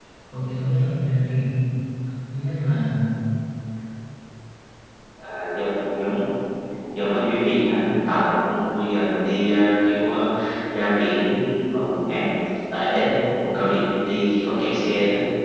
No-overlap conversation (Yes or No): Yes